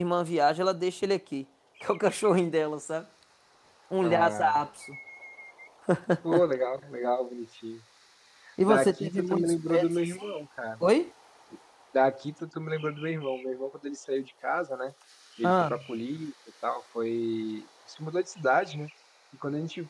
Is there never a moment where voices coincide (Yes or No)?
No